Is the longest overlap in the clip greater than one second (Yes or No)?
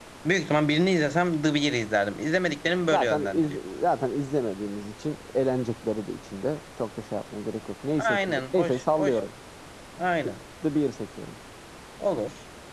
Yes